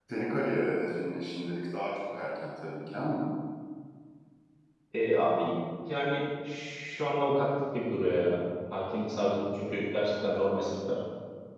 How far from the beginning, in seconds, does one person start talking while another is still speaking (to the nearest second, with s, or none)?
none